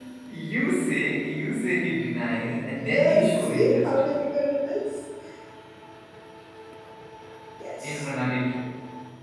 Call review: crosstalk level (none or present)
present